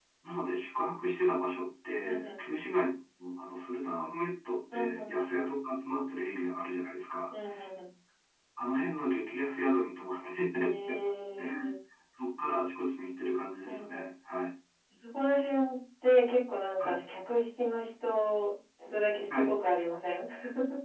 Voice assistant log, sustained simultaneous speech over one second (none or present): none